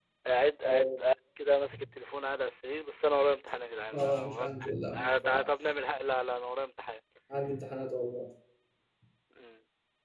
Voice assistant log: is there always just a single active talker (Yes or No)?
No